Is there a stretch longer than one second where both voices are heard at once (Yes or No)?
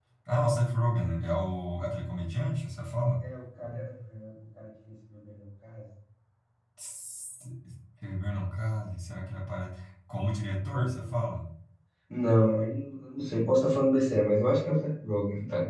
No